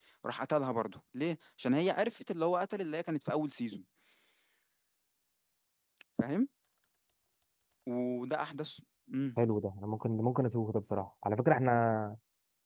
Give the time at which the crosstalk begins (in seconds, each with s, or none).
none